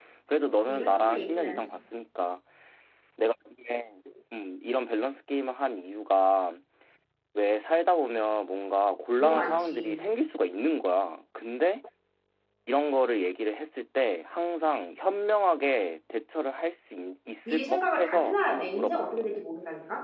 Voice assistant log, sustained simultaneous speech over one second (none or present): present